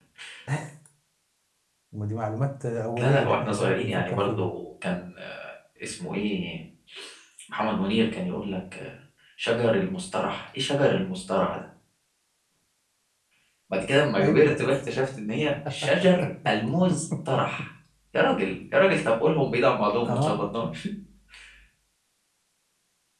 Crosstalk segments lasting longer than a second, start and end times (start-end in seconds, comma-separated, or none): 3.0-4.5